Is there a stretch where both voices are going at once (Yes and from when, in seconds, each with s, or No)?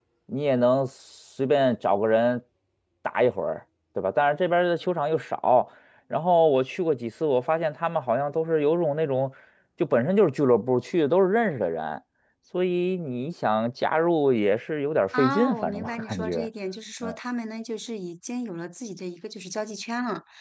Yes, from 15.1 s